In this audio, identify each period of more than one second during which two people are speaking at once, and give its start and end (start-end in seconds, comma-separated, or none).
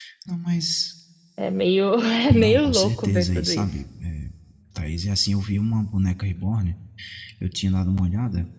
2.3-3.7